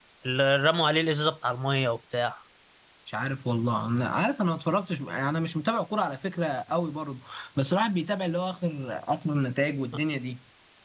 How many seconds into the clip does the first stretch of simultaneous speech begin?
none

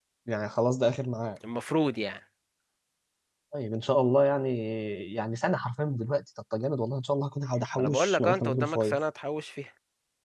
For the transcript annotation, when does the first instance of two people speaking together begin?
7.8 s

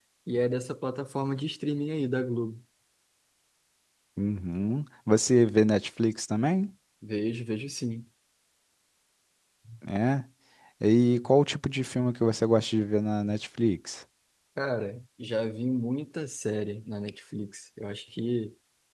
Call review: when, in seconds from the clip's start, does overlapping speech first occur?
none

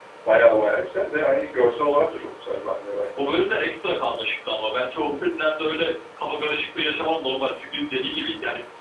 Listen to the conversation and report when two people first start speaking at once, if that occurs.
none

